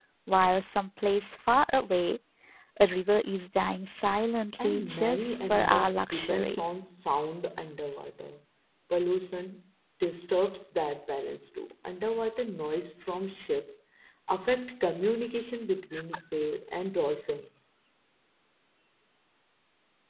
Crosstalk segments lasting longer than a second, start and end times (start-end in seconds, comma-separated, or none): 4.6-6.6